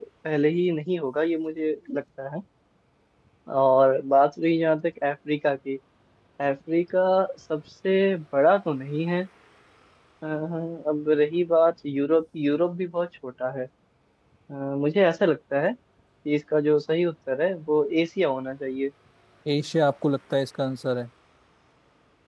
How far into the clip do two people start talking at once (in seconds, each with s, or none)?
none